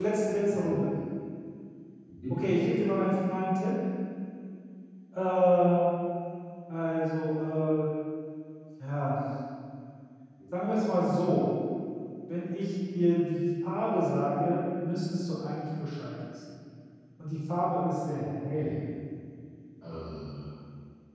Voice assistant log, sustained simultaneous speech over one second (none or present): none